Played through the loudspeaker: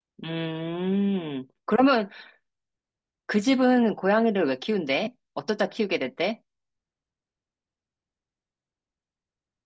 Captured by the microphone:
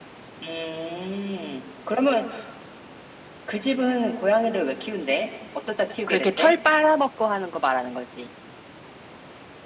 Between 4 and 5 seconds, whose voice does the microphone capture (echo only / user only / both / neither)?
echo only